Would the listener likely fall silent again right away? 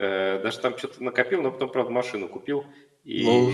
No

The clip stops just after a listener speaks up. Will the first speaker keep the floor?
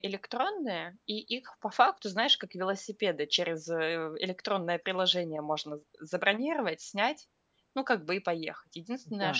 Yes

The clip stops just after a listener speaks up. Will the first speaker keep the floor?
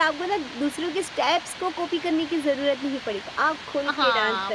No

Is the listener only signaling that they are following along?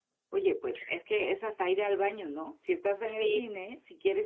Yes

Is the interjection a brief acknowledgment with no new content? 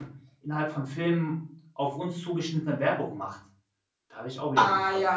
No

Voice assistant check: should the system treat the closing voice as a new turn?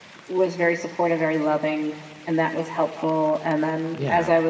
No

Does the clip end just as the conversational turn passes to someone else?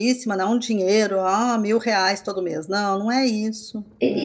Yes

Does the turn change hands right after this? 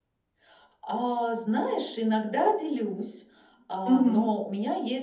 No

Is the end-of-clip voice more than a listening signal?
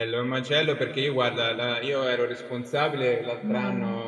No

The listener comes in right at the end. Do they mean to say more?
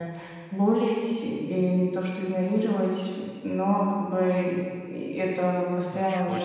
No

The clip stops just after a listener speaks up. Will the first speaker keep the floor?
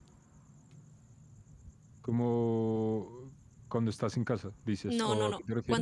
No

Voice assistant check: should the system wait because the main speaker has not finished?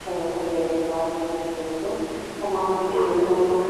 Yes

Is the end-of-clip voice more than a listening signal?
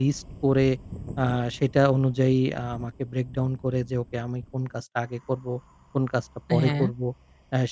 No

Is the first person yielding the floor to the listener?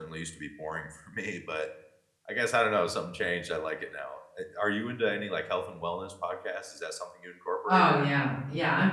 Yes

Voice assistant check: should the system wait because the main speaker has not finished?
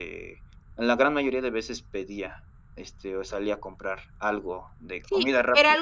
No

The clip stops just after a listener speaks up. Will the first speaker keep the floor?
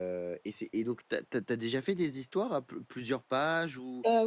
Yes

